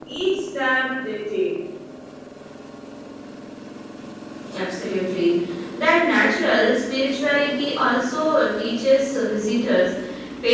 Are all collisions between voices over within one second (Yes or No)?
Yes